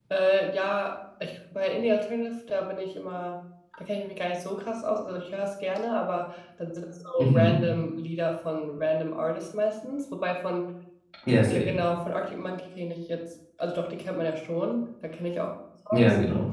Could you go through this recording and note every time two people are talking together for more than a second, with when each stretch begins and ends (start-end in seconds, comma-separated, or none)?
none